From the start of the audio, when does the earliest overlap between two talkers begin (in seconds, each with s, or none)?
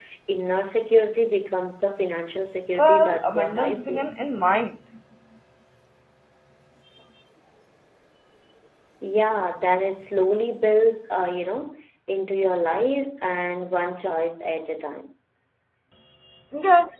2.8 s